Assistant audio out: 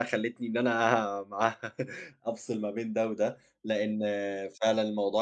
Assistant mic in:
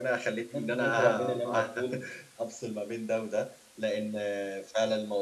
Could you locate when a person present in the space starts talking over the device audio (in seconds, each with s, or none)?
0.5 s